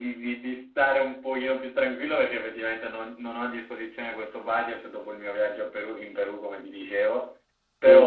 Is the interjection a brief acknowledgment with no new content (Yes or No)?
Yes